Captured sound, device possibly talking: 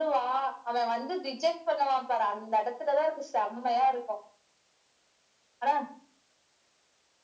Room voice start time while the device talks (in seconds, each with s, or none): none